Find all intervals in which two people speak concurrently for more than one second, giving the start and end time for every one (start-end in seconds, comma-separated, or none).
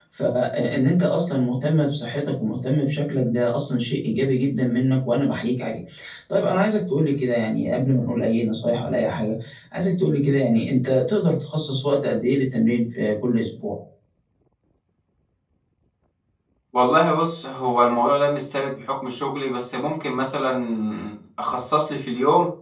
none